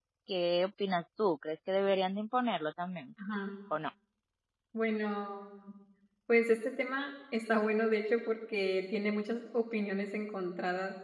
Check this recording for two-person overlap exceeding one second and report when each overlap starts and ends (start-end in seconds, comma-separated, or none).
none